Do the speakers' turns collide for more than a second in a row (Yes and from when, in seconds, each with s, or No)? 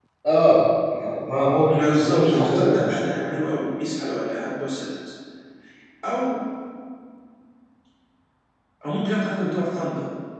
Yes, from 1.7 s